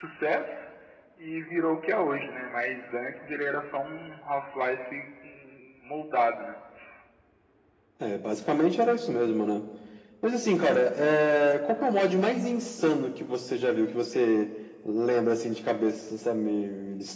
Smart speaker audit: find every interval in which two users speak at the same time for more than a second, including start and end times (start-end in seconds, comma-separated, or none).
none